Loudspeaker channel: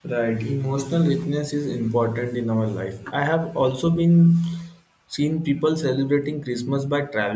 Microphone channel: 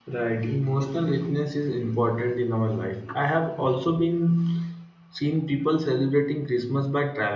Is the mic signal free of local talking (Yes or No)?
Yes